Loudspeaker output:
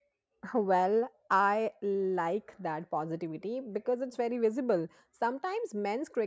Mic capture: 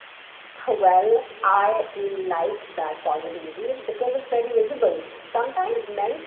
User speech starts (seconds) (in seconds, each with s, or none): none